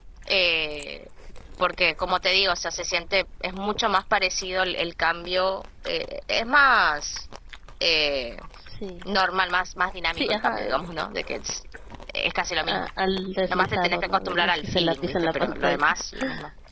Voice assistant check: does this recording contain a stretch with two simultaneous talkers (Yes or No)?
Yes